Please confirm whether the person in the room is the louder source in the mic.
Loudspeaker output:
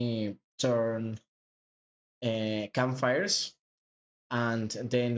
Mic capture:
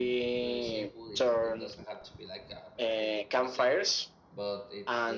No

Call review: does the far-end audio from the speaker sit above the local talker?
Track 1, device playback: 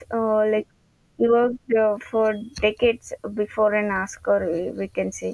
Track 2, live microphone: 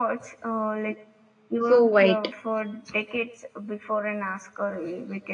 No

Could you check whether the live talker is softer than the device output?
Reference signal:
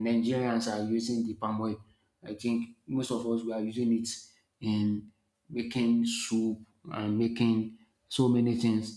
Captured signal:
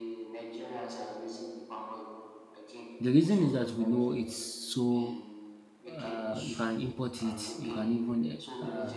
No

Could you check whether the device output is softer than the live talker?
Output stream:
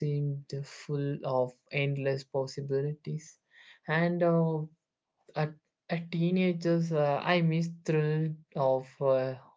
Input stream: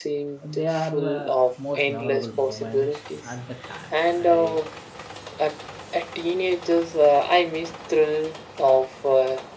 No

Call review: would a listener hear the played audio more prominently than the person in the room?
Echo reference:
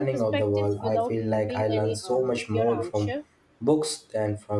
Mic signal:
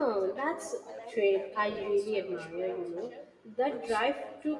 No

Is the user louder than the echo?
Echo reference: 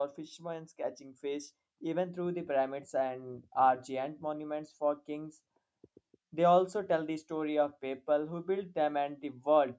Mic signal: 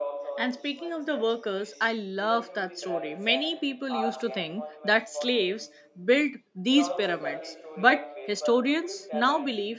Yes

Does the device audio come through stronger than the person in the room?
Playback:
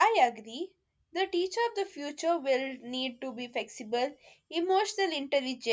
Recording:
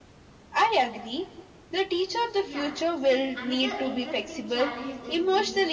Yes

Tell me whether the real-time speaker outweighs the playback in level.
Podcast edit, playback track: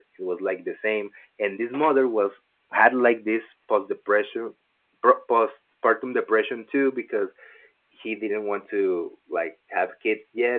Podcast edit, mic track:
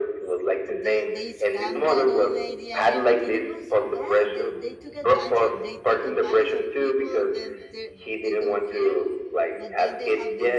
No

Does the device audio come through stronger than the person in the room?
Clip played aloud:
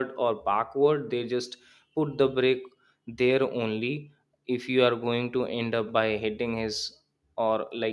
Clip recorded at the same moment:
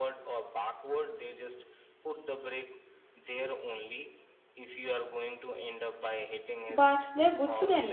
No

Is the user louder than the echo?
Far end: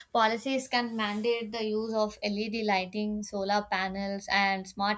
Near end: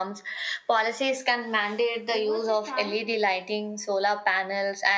No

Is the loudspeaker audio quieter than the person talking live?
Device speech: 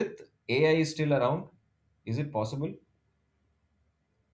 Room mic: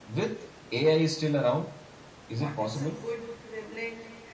No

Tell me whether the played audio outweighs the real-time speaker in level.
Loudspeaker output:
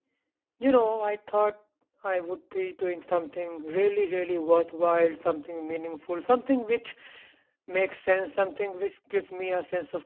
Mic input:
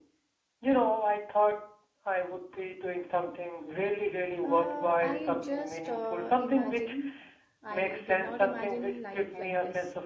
Yes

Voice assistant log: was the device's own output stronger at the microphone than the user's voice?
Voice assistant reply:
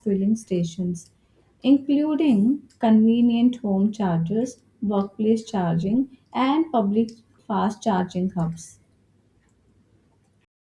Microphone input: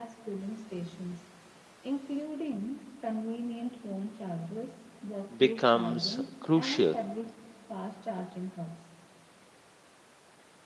No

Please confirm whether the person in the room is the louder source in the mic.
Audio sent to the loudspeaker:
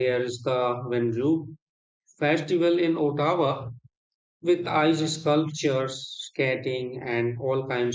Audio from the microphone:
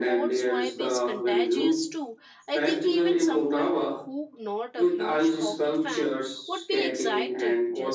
No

